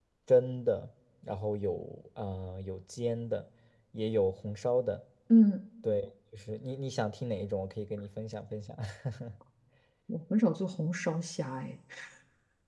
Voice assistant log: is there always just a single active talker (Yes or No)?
Yes